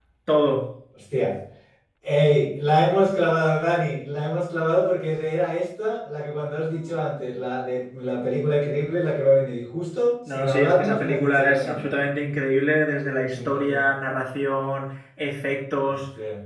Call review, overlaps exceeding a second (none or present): present